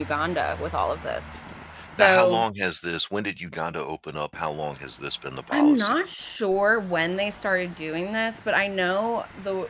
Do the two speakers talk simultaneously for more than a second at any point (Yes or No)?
No